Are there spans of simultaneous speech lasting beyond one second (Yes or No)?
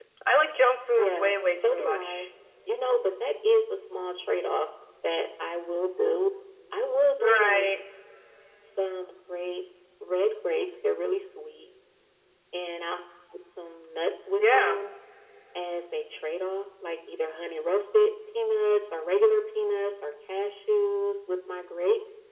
Yes